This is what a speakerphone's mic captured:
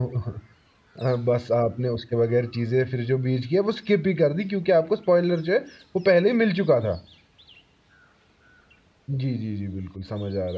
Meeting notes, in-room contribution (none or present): present